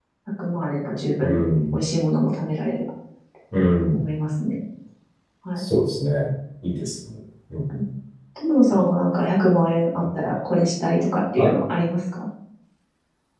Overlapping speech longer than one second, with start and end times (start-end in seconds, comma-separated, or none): none